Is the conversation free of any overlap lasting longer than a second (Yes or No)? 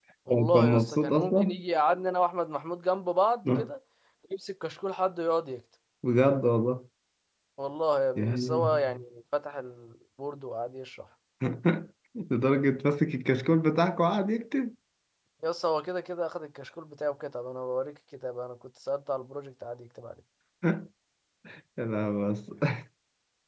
No